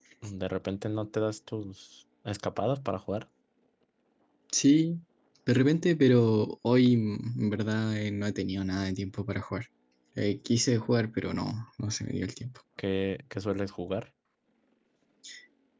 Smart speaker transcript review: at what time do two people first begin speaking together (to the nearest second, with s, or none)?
none